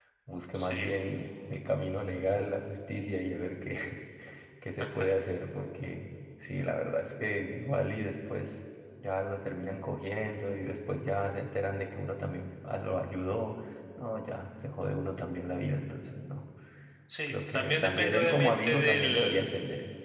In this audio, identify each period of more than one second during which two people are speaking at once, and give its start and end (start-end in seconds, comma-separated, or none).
17.3-19.5